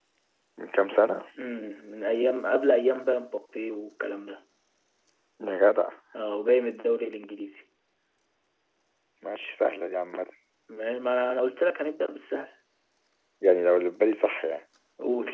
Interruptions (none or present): none